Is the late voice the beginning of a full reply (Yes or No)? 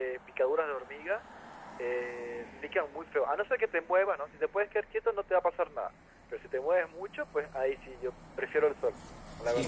Yes